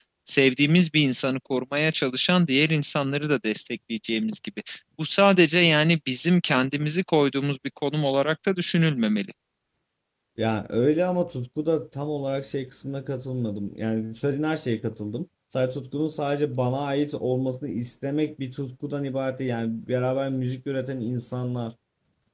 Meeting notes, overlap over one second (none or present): none